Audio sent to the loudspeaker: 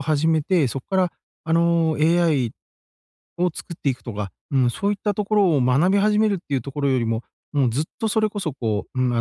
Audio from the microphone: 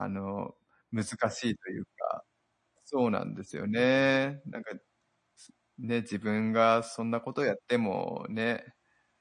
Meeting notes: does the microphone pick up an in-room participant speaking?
Yes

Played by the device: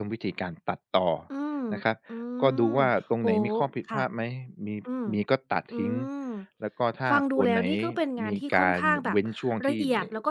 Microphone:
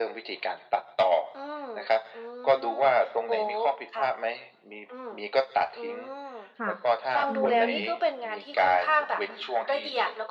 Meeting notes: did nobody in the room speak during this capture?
No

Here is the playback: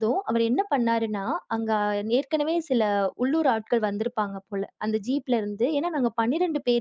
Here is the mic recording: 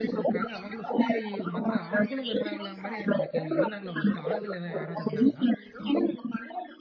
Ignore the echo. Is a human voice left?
Yes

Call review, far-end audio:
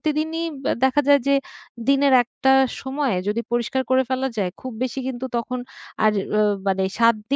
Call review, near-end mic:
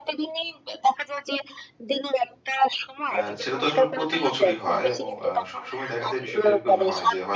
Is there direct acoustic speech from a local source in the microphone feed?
Yes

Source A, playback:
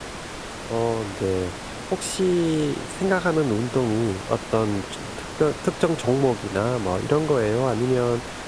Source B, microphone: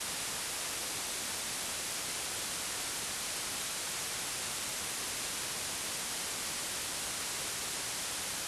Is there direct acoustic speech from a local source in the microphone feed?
No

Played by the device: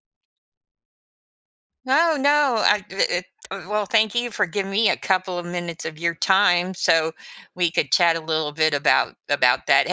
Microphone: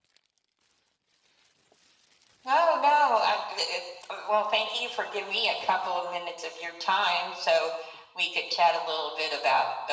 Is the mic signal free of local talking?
Yes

